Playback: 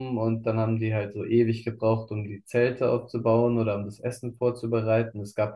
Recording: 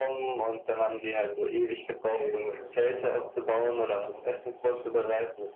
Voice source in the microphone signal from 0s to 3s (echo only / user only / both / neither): both